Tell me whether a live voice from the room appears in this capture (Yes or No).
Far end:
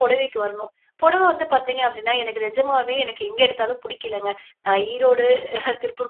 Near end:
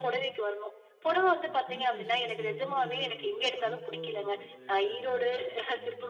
Yes